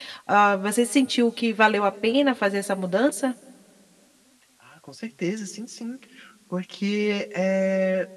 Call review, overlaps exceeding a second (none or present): none